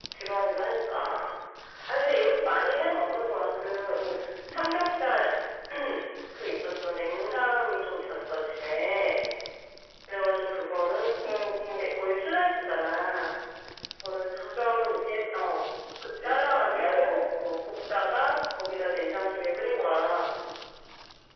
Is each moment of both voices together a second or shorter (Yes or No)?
Yes